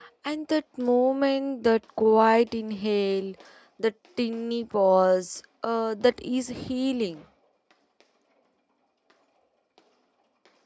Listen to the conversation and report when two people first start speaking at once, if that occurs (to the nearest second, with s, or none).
none